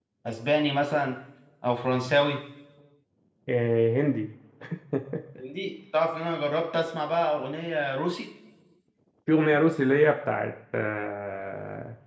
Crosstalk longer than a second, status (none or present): none